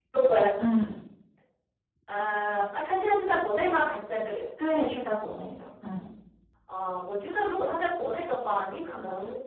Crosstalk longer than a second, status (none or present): none